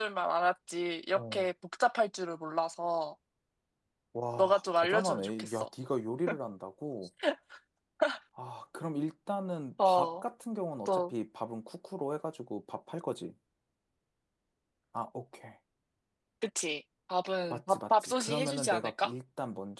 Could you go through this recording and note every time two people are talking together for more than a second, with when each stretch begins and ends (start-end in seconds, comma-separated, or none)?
4.4-5.7, 17.5-19.1